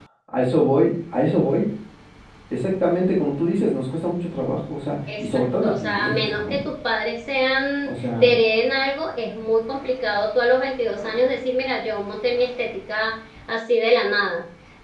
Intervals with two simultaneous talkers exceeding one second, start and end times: 5.2-6.6

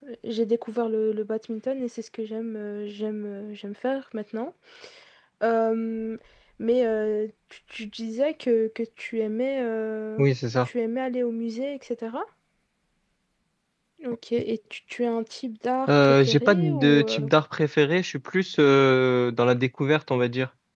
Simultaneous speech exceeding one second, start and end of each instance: 15.9-17.3

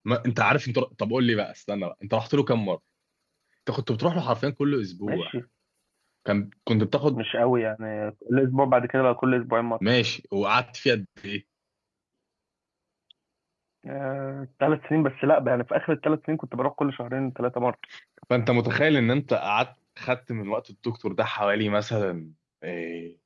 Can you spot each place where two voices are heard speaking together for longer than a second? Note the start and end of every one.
none

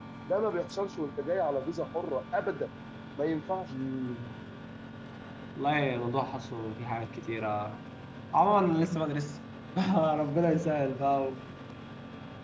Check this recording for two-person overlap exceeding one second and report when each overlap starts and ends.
none

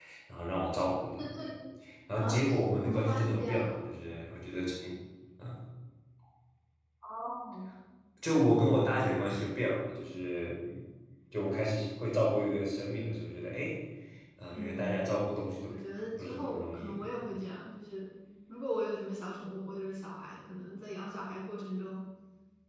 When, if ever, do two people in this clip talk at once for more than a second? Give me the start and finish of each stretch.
2.2-3.8, 15.7-17.0

